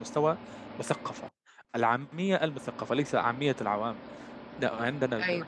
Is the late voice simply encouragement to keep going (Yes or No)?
Yes